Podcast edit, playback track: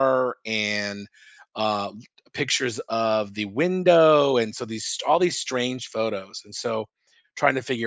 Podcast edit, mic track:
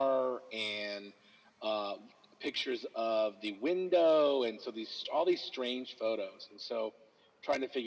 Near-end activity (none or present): none